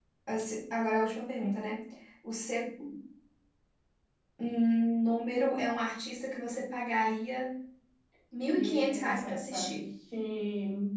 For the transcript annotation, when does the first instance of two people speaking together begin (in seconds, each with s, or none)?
8.5 s